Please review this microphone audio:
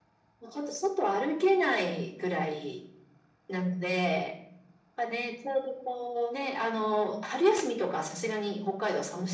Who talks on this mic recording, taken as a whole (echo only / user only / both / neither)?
echo only